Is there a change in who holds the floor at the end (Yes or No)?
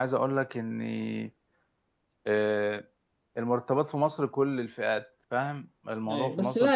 Yes